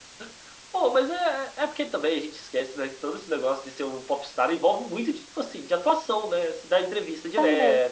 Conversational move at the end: listening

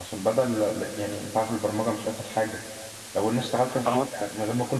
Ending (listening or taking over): listening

